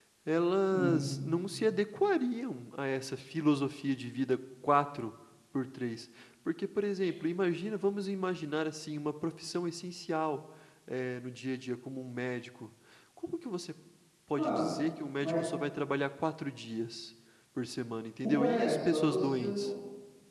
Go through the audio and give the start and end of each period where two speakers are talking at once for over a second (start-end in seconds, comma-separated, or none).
18.2-19.7